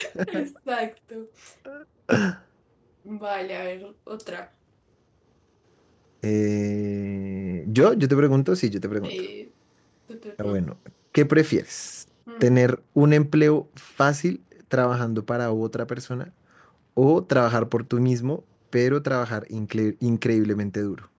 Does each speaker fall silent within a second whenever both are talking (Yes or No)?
Yes